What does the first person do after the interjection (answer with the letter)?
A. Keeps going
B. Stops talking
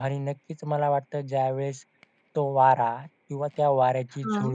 A